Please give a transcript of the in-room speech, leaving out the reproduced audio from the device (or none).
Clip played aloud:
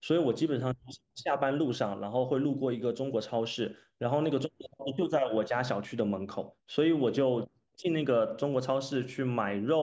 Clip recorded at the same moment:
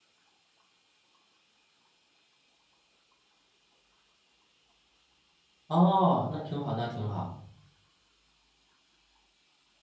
哦，那挺好，那挺好。